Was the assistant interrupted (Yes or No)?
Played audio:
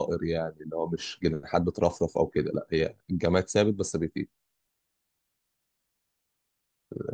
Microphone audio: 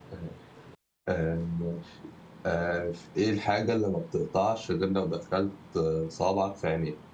Yes